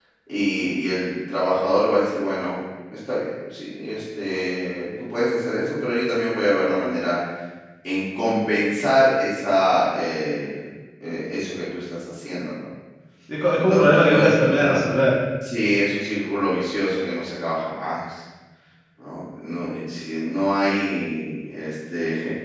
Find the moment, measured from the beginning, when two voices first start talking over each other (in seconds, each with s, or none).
13.6 s